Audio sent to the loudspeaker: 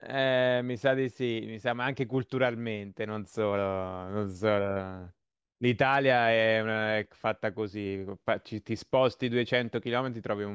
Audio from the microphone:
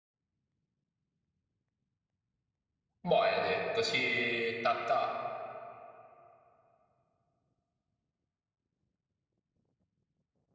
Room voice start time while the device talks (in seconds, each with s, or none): 3.1 s